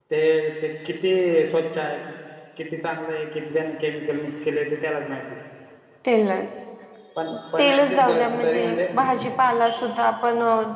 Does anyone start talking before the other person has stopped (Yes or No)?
Yes